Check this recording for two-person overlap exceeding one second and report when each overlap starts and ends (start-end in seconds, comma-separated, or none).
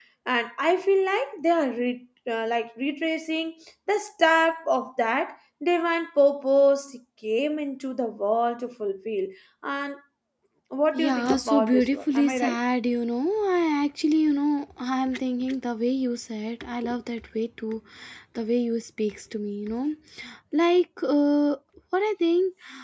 10.9-12.6